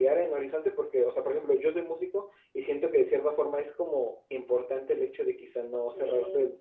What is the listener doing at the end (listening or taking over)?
listening